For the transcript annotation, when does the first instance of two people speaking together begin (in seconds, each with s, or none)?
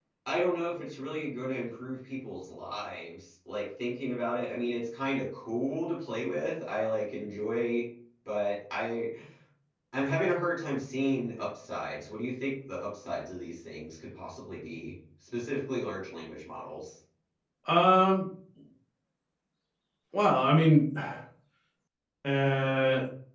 none